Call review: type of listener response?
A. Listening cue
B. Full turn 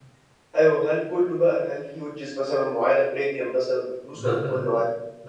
B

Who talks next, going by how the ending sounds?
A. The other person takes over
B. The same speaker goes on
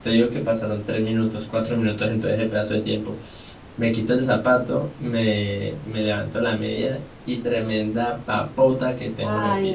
A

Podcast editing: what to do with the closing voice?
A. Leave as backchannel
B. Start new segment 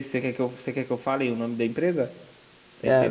B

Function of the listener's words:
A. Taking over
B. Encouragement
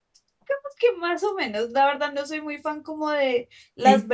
B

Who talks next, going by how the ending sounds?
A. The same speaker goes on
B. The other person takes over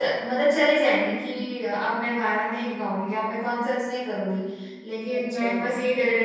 A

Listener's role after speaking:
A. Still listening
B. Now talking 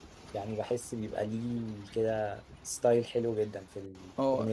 B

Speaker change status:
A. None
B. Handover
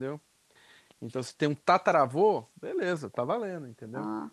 A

